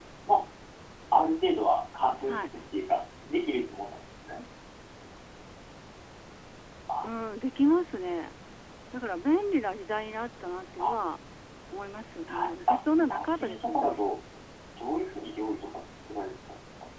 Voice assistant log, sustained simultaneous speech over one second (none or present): present